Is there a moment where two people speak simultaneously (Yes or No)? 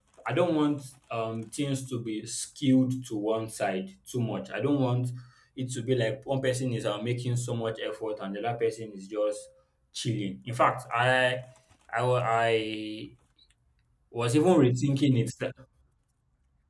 No